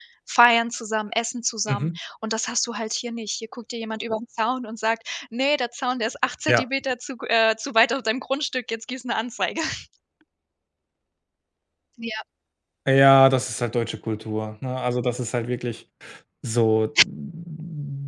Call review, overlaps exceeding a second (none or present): none